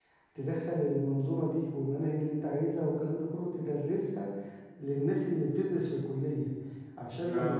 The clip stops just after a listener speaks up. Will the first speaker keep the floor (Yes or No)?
Yes